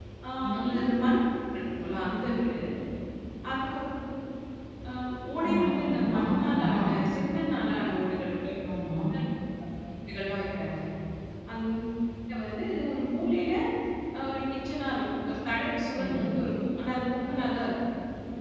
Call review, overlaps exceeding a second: present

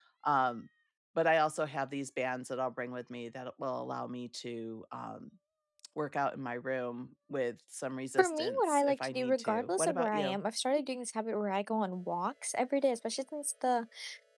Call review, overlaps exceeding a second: present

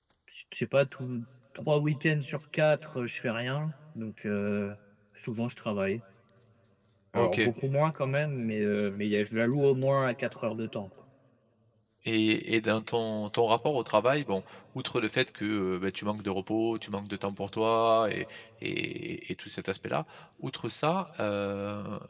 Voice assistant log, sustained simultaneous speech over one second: none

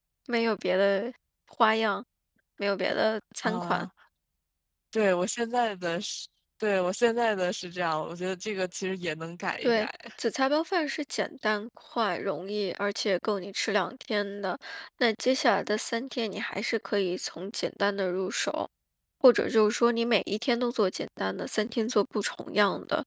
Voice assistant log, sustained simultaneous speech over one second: none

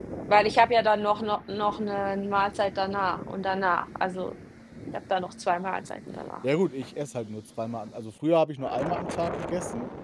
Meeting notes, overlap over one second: none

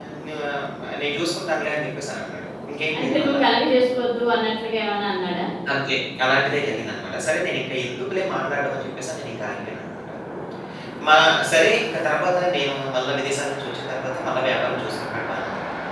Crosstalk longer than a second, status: none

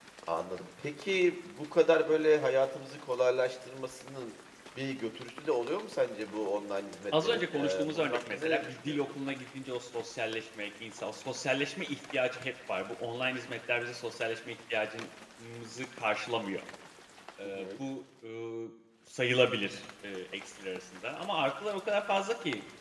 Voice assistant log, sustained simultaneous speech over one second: present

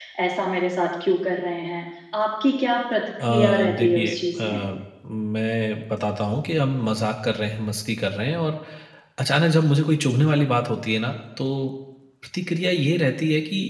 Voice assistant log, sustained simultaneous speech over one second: present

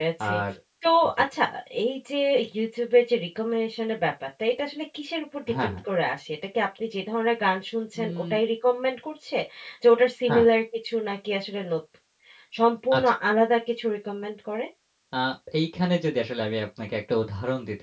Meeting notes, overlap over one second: none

